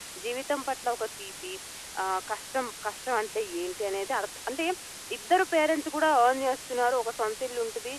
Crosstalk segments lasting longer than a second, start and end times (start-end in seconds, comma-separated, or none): none